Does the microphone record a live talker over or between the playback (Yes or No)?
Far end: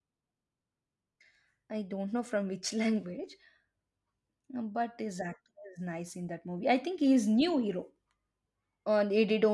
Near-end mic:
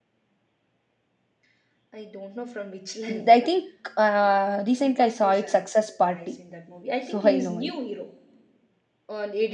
Yes